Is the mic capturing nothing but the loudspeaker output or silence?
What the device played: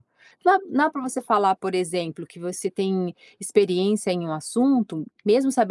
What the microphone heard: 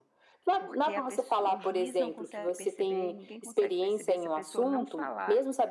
No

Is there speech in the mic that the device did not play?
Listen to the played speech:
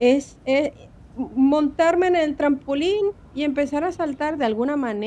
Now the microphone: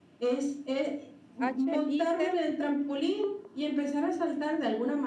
Yes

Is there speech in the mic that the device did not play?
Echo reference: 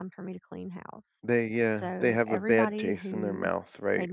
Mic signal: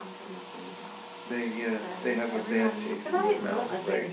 Yes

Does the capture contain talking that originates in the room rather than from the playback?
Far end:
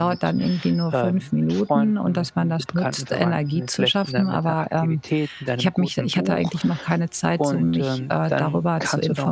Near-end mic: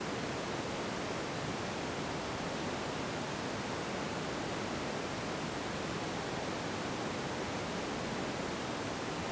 No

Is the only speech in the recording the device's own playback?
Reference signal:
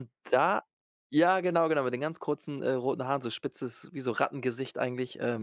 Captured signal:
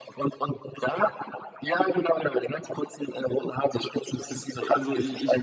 No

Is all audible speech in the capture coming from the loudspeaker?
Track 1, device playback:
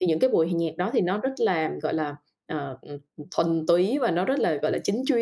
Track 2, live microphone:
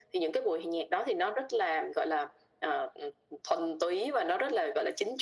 Yes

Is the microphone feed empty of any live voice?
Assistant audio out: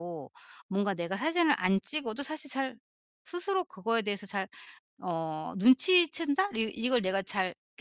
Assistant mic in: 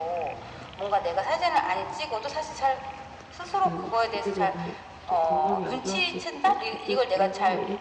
No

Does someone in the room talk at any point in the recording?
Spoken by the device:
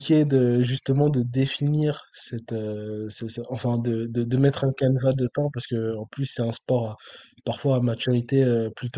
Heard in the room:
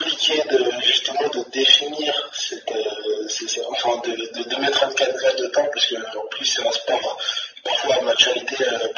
No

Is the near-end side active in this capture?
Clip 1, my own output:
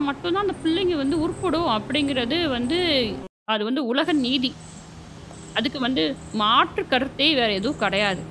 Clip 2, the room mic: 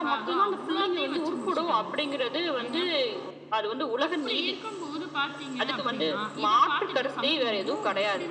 Yes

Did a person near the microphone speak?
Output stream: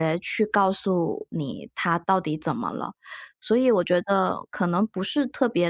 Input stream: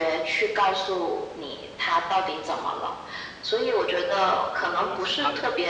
Yes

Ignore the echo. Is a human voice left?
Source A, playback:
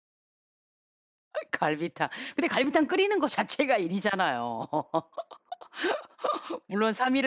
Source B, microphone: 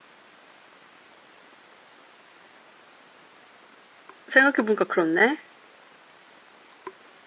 Yes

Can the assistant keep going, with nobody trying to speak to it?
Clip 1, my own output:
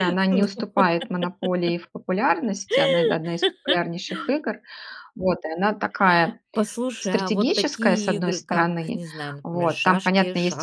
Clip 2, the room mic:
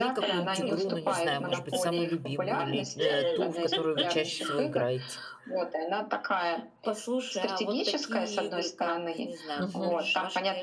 No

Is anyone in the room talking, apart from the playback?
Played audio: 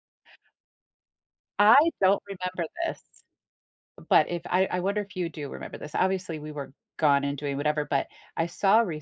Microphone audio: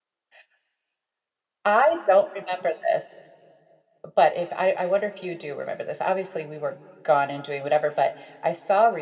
No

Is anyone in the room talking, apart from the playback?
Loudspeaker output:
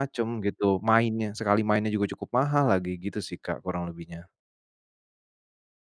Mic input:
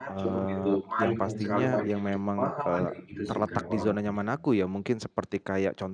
Yes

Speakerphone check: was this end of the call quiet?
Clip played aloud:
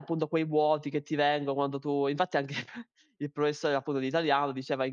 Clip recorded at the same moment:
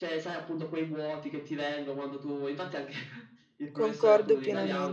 No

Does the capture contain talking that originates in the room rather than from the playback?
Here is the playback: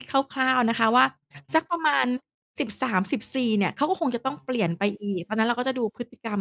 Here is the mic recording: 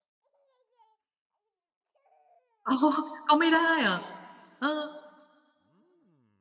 Yes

